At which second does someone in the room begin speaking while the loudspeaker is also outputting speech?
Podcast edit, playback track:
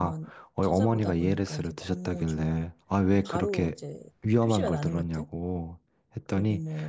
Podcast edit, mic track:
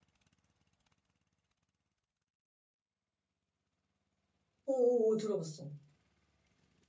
4.6 s

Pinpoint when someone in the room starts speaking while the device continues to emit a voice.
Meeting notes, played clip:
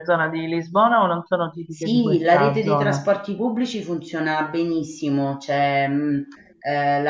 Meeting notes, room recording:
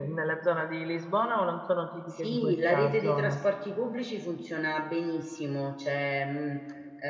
none

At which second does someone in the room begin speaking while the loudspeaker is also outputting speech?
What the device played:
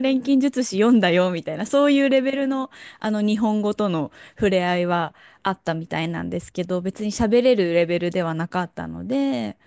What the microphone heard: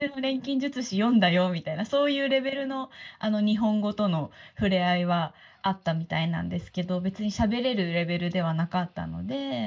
none

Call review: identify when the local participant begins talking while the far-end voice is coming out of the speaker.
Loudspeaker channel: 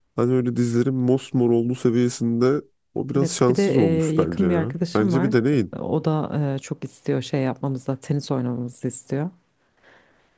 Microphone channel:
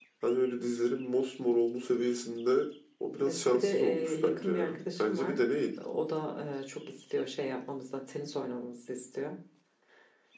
none

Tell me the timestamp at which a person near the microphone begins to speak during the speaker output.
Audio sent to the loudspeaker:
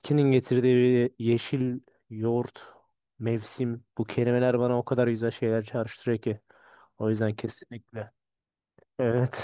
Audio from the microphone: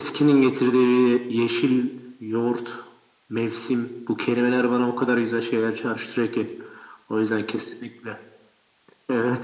none

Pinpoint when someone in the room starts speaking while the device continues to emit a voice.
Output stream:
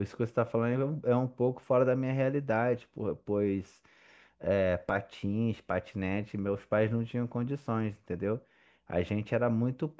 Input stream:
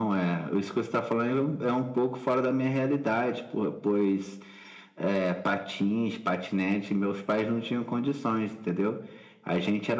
none

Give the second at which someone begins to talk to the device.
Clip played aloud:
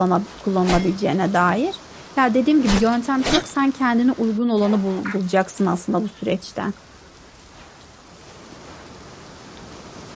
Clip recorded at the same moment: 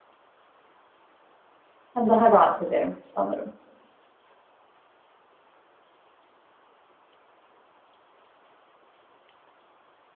1.9 s

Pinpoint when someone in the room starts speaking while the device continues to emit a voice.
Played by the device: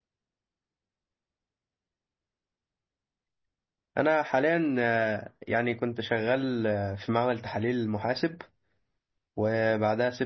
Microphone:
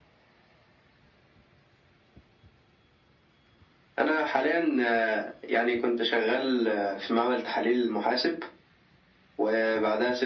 none

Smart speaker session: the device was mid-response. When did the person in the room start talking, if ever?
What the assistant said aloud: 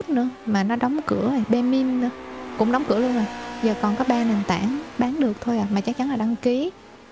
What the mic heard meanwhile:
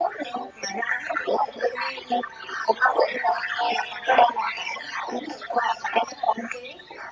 none

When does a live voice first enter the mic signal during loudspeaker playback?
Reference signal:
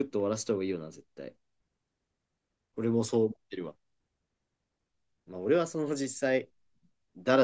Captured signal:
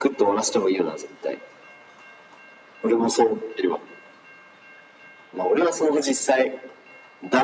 none

